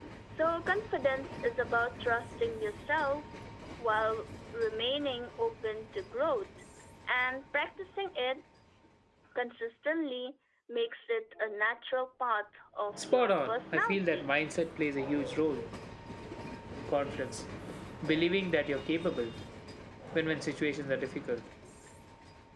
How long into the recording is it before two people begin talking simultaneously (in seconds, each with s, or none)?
12.9 s